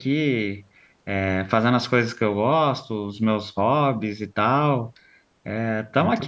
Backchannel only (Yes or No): No